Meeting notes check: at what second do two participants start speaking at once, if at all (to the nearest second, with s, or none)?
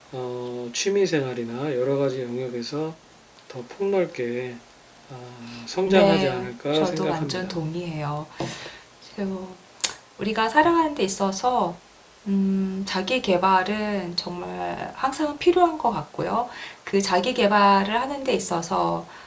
6 s